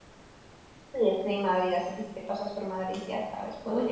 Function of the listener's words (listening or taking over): taking over